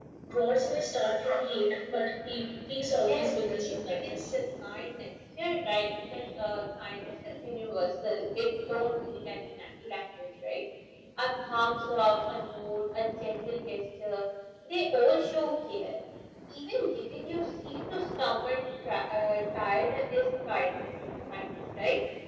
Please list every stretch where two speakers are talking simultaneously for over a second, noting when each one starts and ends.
2.9-4.2

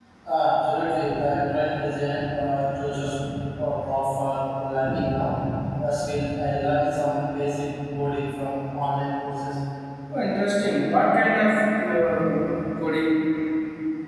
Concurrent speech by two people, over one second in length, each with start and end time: none

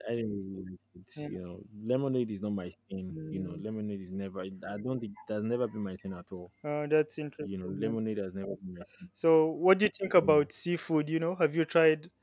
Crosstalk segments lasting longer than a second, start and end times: none

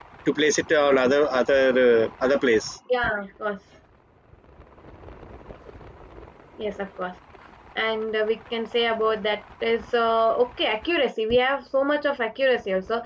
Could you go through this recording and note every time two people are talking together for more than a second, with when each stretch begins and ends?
none

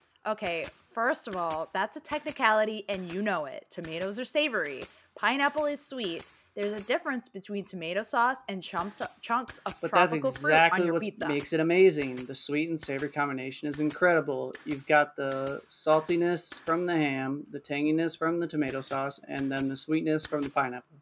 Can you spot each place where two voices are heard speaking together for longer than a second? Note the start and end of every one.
9.9-11.4

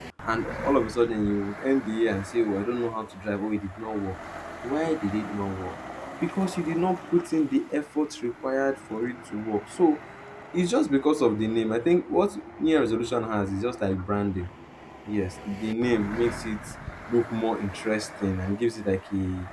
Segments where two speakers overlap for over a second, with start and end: none

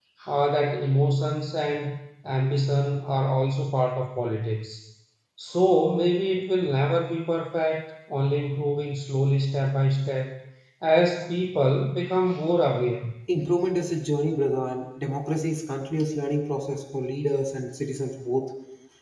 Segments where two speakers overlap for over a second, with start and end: none

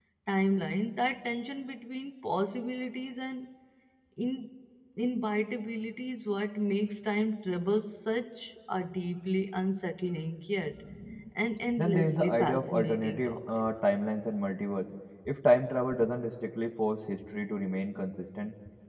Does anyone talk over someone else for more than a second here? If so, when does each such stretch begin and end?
11.8-13.4

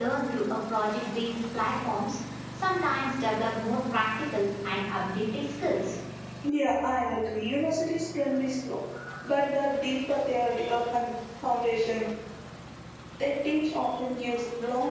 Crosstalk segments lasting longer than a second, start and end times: none

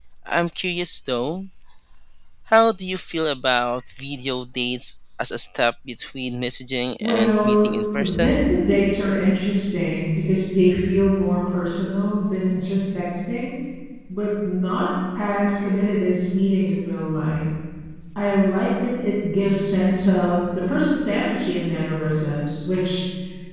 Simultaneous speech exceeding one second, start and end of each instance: 7.0-8.4

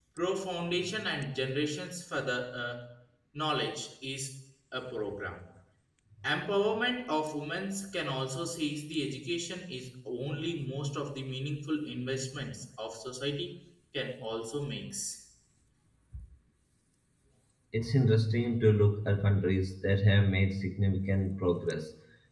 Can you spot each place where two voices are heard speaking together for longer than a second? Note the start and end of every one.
none

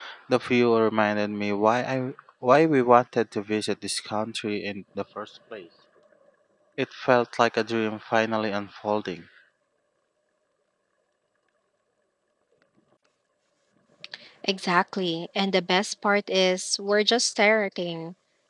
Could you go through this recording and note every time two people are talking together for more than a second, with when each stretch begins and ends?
none

